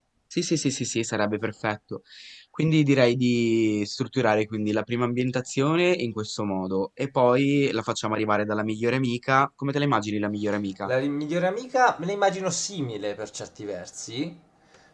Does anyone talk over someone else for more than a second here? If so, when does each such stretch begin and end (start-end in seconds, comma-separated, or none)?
none